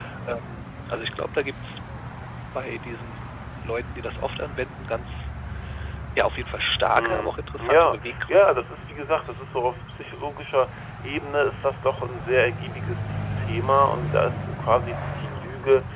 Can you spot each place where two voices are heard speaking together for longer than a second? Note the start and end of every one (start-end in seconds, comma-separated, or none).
6.9-8.6